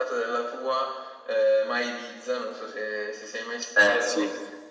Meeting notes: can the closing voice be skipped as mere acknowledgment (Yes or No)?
Yes